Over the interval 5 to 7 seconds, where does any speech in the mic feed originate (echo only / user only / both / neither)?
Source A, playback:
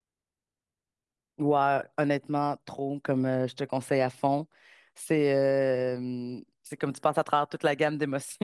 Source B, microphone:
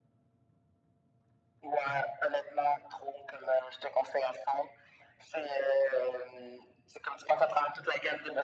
echo only